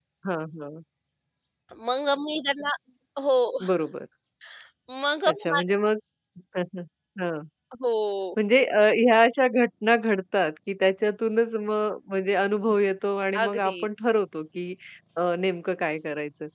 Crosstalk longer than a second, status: none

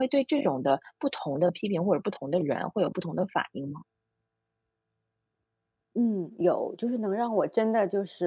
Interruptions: none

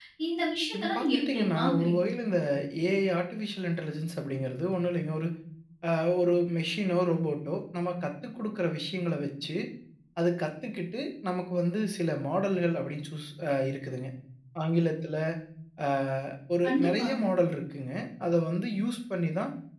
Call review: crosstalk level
present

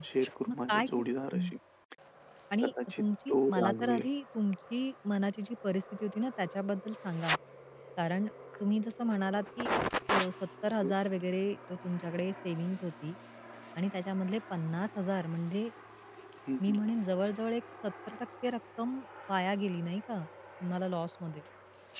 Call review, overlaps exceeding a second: present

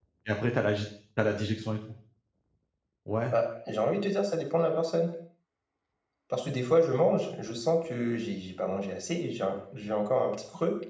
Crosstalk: none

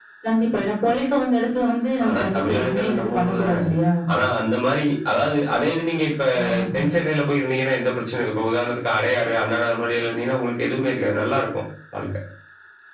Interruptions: present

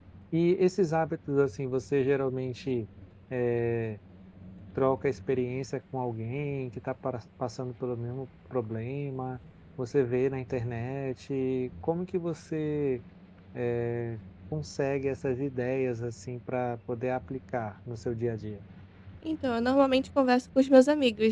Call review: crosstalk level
none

